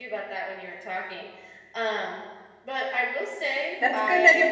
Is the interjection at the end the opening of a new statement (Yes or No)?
Yes